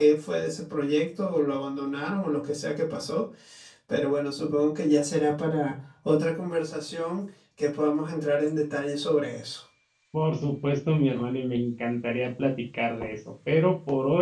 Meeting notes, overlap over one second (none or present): none